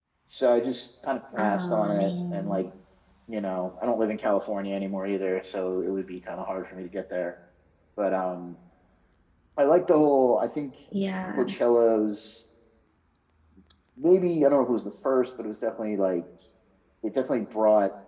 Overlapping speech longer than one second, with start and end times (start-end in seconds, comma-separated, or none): 1.4-2.6